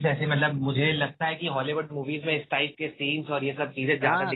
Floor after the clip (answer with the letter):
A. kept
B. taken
B